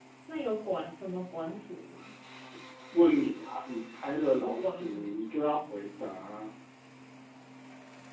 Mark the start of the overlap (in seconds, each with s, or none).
4.3 s